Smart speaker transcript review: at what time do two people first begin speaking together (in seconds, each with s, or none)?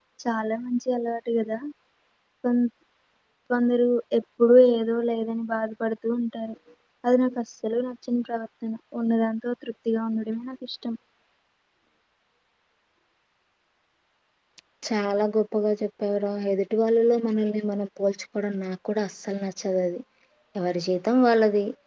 none